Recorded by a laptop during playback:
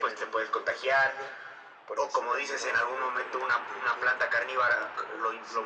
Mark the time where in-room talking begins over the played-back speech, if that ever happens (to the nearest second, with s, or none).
none